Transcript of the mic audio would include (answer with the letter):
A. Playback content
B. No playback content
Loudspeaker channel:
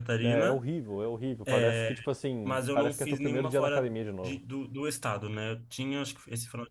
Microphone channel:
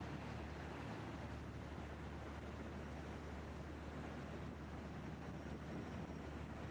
B